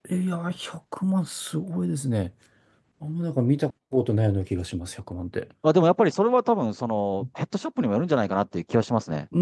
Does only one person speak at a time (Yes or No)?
Yes